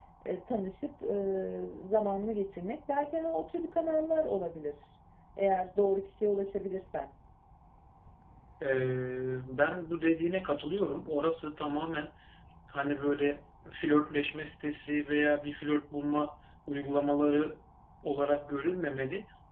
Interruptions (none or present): none